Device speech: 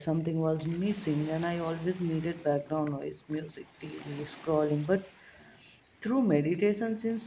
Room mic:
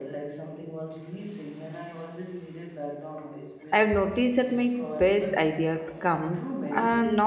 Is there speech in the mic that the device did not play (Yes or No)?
Yes